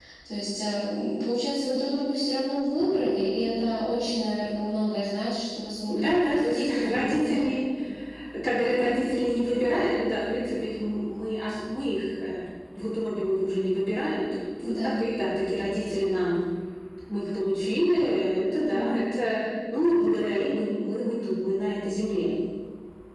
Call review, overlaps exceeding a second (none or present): present